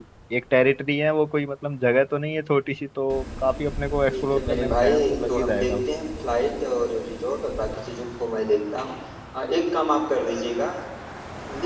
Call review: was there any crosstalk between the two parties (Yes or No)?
Yes